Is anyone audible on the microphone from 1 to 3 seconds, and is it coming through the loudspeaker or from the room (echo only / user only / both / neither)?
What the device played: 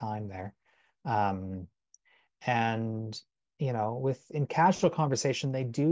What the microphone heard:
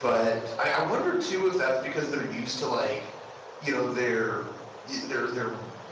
user only